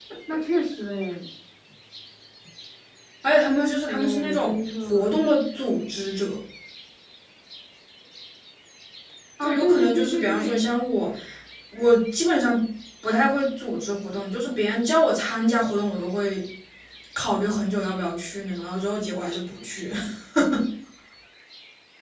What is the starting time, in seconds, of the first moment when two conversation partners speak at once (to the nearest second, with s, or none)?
3 s